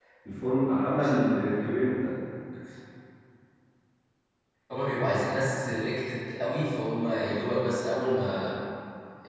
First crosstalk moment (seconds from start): none

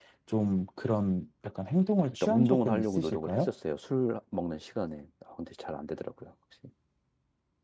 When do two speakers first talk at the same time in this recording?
2.1 s

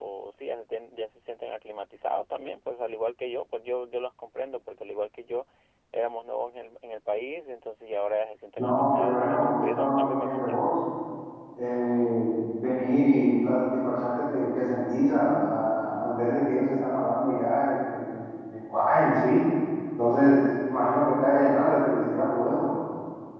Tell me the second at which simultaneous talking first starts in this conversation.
8.6 s

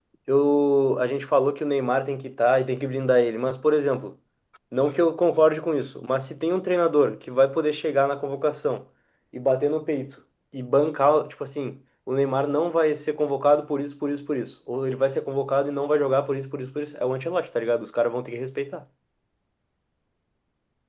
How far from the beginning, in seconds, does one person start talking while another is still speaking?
none

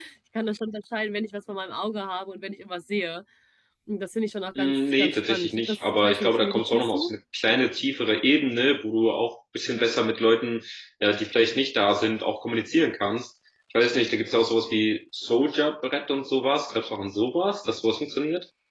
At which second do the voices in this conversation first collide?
4.6 s

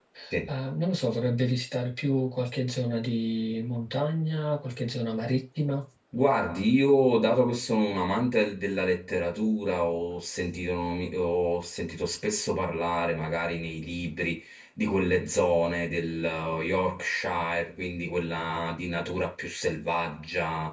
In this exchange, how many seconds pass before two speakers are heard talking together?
none

